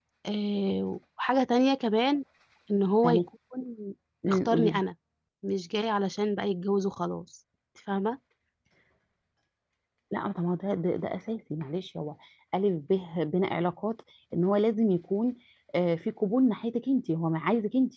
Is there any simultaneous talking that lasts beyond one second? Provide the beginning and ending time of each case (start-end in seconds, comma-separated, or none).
none